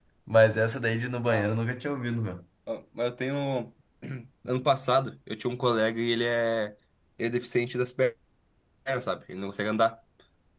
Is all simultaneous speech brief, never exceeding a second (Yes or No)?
Yes